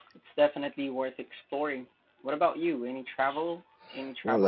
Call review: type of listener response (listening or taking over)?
taking over